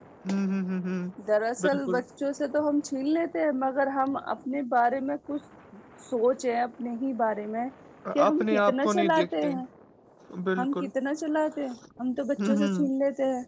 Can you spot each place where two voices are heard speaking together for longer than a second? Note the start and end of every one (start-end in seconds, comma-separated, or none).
8.3-9.5